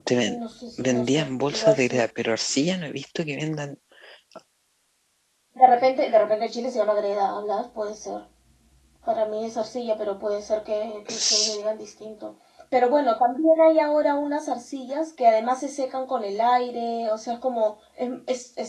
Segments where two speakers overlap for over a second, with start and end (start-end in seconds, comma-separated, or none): 0.8-2.0